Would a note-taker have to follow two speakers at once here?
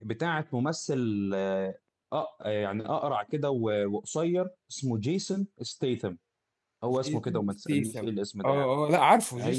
Yes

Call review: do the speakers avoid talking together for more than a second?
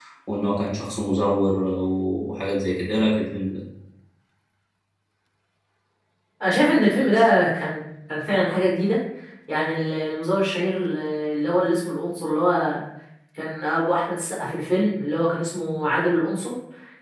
Yes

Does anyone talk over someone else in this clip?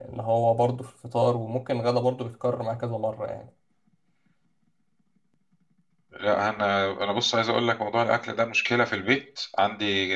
No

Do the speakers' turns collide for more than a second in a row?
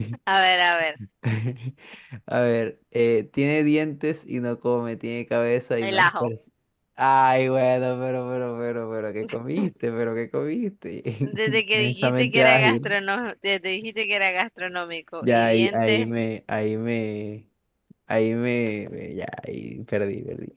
Yes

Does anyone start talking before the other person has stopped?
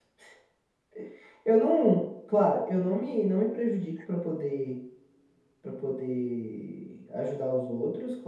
No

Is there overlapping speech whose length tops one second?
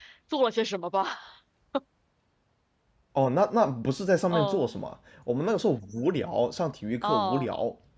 No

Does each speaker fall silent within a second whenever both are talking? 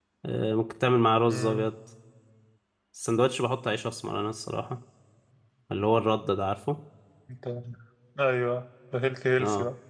Yes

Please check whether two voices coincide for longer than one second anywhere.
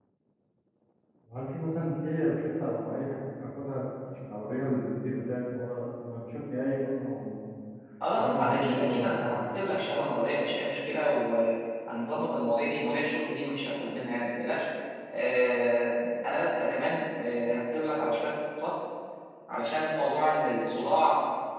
Yes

